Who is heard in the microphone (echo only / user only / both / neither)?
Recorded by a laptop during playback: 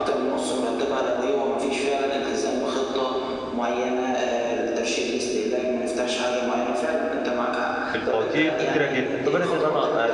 both